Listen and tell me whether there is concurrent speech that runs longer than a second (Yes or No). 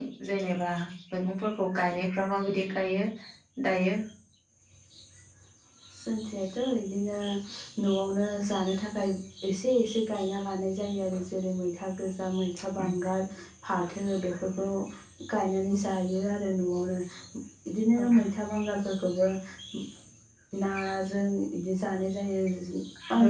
No